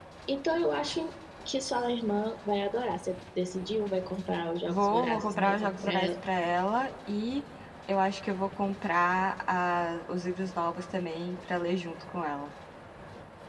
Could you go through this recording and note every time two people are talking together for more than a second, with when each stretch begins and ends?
4.7-6.1

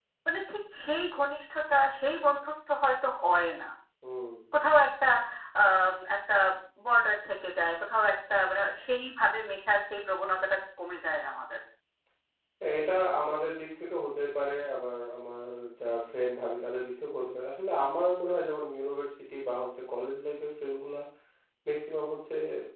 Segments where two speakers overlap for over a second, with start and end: none

